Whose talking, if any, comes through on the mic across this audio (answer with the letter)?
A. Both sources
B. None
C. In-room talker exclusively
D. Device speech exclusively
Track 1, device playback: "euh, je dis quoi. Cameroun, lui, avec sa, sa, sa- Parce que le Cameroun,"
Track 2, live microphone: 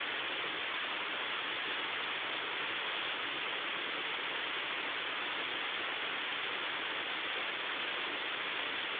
B